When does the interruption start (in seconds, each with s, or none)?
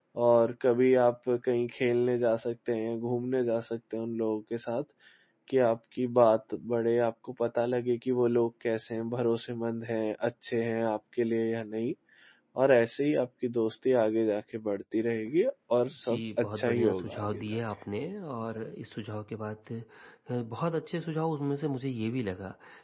16.1 s